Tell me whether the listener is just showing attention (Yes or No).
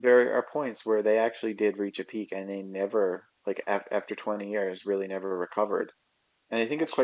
Yes